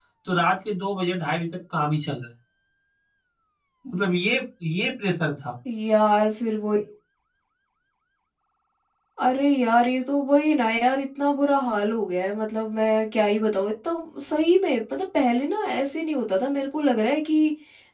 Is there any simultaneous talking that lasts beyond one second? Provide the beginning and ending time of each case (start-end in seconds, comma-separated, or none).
none